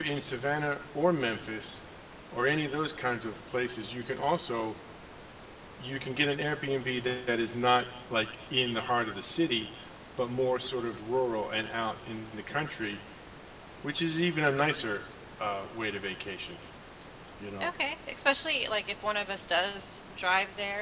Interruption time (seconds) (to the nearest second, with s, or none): none